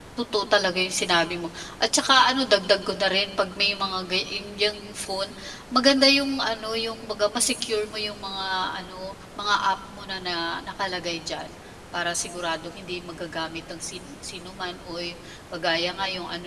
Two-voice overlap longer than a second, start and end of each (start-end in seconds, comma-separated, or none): none